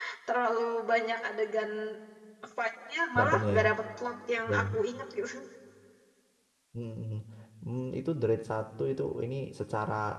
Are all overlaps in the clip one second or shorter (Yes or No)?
Yes